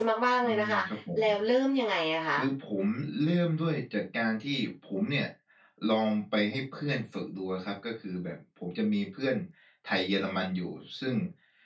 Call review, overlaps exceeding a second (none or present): none